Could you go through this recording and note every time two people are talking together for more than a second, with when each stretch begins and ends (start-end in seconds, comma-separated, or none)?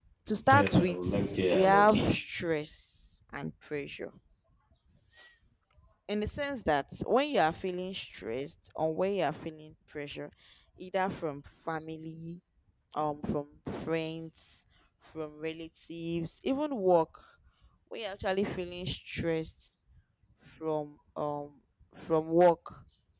0.5-2.2